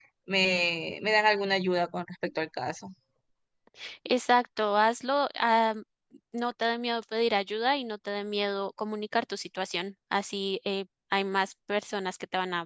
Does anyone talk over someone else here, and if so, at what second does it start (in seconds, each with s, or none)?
none